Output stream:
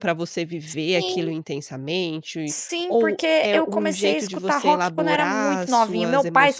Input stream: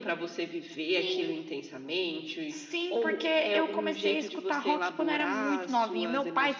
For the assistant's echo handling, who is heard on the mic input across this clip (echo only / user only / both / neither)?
echo only